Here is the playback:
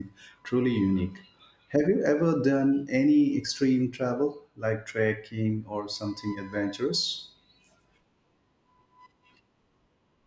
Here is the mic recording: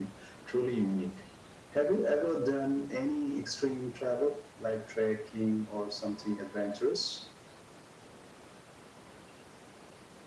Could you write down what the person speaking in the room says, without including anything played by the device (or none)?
none